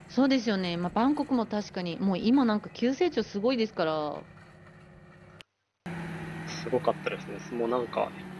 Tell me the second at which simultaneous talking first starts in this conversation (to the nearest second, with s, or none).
none